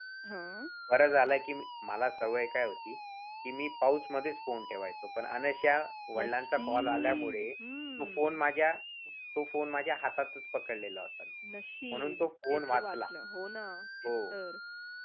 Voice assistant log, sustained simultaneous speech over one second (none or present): present